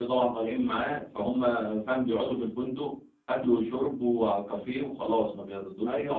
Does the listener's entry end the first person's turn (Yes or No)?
Yes